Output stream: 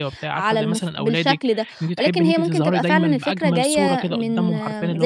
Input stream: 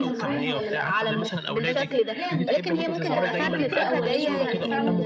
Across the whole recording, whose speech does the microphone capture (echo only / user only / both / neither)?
both